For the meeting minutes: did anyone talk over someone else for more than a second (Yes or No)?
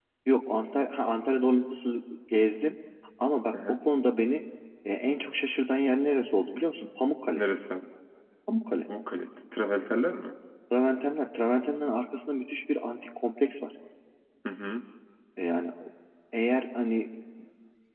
No